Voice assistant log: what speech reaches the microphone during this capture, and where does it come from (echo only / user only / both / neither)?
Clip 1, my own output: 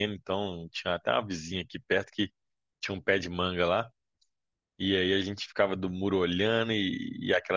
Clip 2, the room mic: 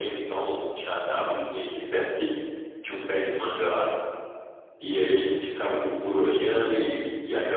echo only